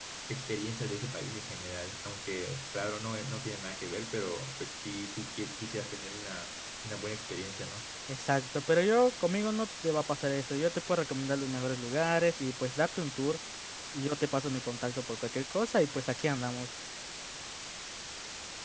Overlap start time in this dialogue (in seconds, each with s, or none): none